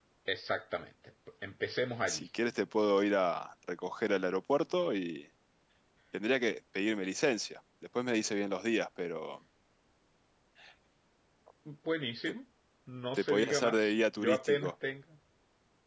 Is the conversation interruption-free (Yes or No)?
No